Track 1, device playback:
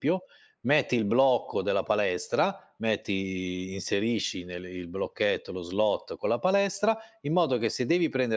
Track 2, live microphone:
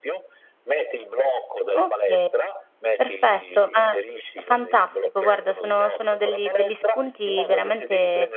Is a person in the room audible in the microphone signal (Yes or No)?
Yes